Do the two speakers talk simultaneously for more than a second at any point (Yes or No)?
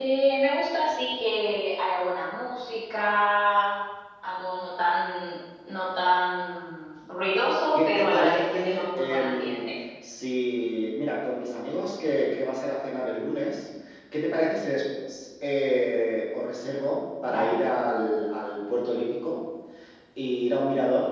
Yes